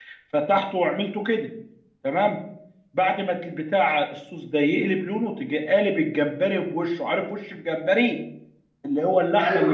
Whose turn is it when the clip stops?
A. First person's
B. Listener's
A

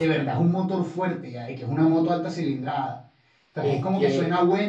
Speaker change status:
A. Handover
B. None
B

